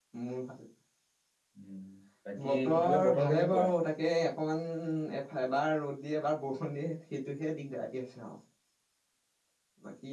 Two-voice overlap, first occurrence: 2 s

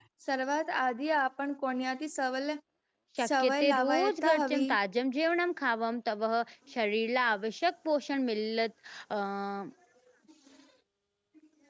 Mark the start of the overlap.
3 s

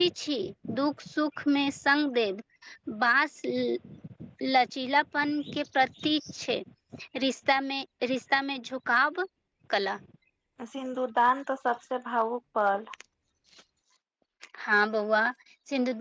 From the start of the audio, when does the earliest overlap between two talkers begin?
none

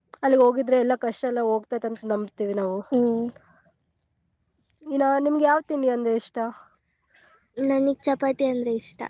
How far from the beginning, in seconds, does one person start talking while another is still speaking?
none

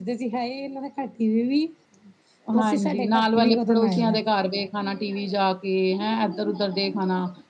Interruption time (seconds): 3 s

